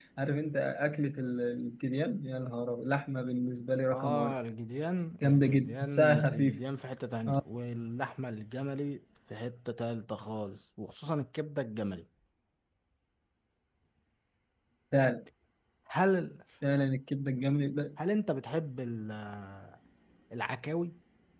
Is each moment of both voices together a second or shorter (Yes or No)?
No